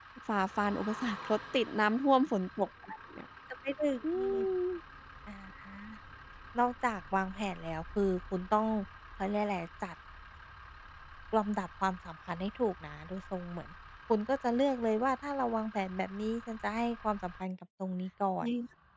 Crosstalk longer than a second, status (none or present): none